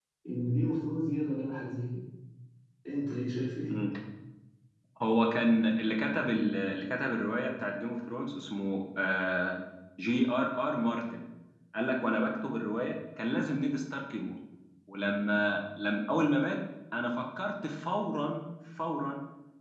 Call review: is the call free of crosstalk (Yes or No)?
Yes